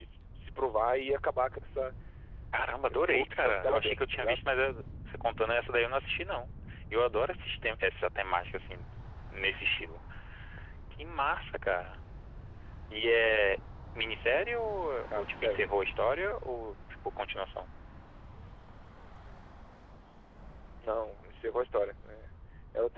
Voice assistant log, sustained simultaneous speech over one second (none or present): present